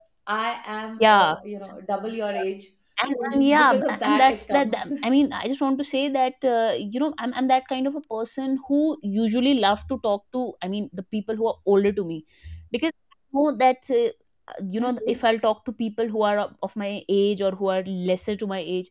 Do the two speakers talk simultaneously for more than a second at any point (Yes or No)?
Yes